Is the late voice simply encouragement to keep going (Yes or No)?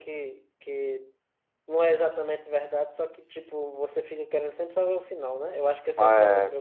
Yes